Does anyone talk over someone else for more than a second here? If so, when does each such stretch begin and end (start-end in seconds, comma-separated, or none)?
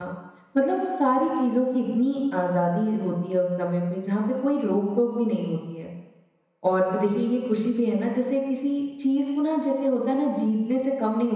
none